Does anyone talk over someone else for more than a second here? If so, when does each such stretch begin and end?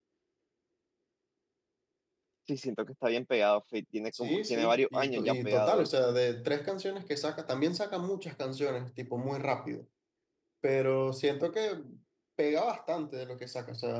4.2-6.1

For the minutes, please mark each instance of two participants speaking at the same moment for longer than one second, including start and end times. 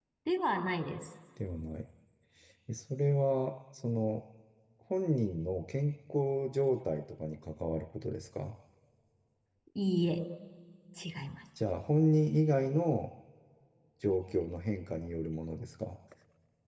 none

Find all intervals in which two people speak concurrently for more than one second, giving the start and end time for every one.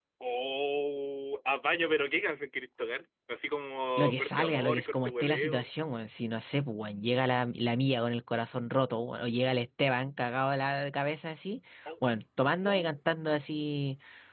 4.0-5.7

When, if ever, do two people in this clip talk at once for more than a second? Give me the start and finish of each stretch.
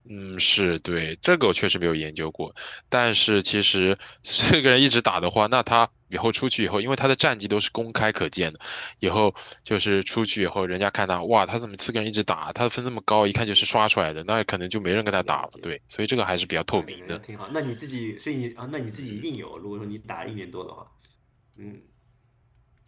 none

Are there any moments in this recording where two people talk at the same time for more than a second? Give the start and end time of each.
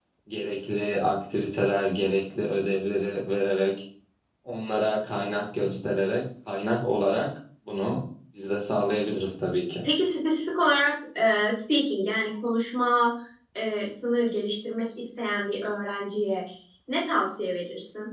none

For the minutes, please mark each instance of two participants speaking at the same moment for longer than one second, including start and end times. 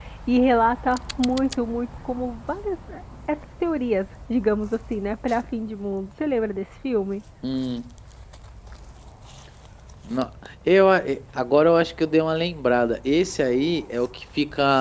none

